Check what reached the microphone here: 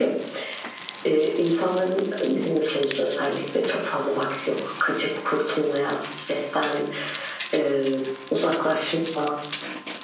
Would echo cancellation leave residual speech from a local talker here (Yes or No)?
No